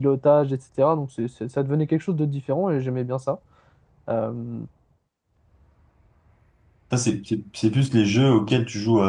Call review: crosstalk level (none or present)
none